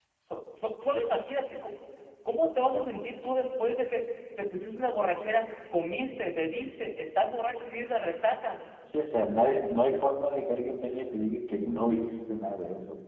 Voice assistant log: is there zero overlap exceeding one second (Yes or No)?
Yes